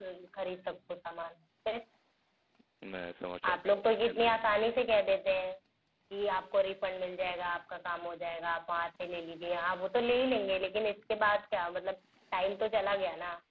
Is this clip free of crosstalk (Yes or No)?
No